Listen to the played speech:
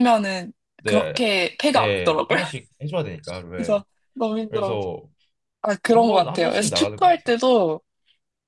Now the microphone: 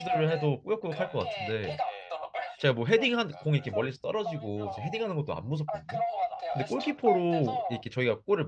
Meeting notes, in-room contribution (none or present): present